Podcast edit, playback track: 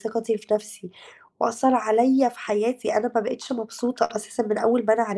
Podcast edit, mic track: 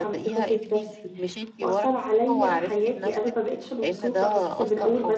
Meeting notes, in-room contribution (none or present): present